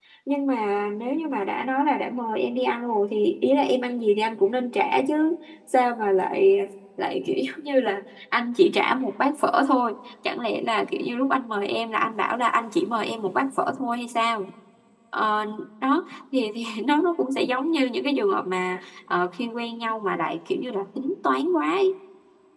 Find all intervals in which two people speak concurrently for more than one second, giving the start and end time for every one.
none

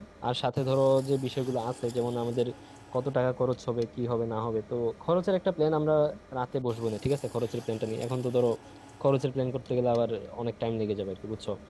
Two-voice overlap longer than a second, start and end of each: none

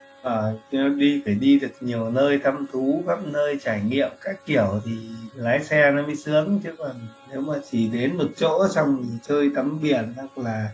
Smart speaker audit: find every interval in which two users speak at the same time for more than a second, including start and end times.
none

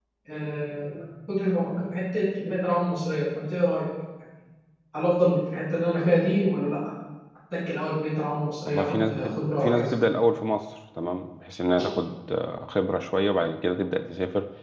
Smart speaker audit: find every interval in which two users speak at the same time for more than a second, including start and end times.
8.6-9.9

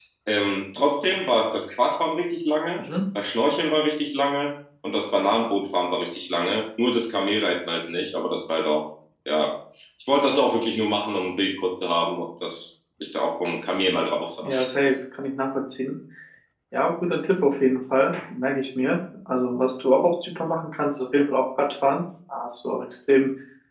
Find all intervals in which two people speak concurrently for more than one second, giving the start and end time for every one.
none

